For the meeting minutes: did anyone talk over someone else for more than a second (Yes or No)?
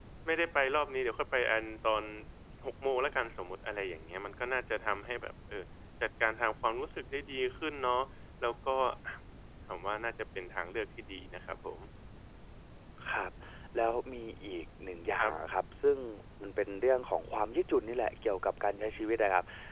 No